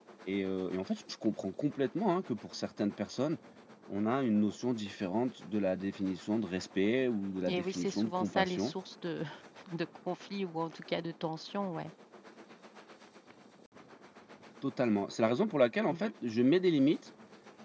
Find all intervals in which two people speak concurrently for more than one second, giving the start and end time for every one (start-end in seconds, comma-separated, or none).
7.5-8.7